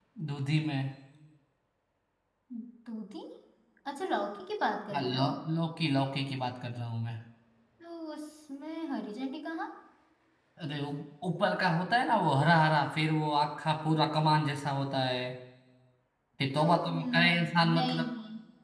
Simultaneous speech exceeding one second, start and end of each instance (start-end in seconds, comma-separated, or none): 16.6-18.1